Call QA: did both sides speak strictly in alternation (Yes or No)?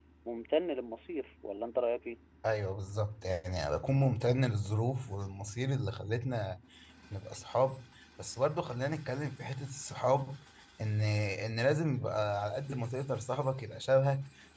Yes